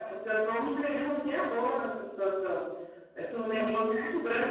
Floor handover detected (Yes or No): No